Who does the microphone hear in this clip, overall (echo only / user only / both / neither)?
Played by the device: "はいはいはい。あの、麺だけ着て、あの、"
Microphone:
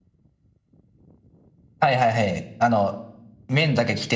echo only